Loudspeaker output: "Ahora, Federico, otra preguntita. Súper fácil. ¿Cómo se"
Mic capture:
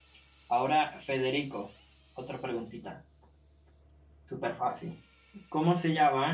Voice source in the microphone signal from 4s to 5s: echo only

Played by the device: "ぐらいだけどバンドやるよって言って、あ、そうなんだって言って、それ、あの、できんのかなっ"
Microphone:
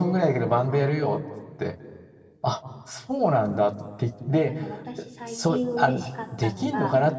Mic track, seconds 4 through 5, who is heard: both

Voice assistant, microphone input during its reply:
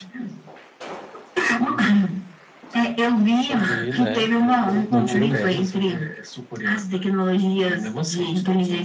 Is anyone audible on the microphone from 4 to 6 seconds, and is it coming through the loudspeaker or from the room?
both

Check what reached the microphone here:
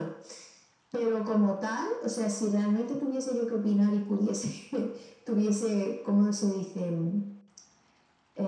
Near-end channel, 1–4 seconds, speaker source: echo only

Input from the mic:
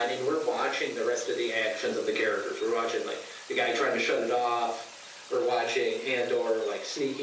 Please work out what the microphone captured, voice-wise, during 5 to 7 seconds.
echo only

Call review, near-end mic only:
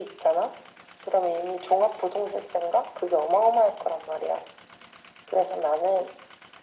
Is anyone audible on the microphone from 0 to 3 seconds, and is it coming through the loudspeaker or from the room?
echo only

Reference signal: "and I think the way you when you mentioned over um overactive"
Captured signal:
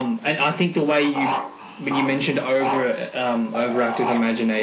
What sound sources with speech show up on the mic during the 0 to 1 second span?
echo only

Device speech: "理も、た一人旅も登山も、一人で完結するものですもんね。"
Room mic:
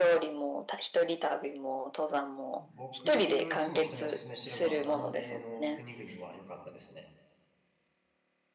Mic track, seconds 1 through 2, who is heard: echo only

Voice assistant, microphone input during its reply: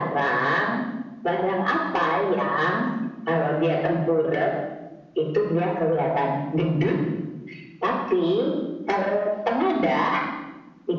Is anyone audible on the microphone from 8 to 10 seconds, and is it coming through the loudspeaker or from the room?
echo only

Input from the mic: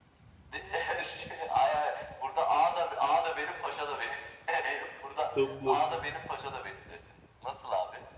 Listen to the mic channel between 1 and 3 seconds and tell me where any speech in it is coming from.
echo only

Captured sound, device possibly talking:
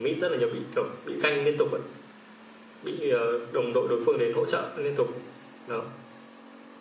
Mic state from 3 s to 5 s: user only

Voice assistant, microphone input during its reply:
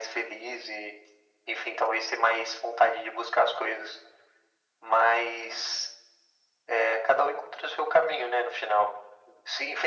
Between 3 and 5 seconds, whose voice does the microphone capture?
echo only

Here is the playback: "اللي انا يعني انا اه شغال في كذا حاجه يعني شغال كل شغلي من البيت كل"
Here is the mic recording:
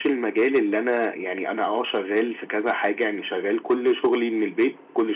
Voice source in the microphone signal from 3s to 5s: echo only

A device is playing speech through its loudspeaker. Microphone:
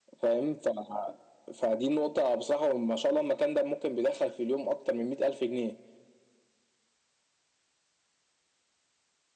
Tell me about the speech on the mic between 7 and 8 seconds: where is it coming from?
neither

